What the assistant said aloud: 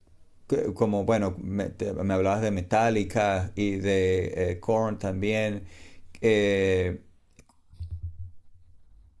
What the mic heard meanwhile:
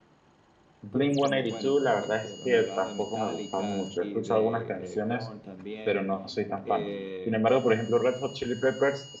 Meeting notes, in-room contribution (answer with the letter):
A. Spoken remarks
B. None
A